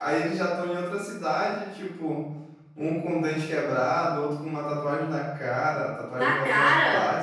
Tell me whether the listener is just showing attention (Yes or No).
Yes